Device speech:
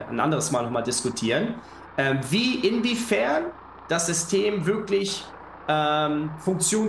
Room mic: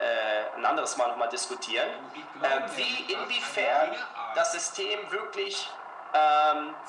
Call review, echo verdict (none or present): present